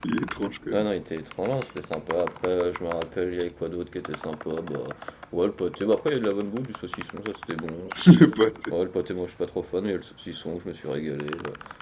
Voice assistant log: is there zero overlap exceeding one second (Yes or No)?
Yes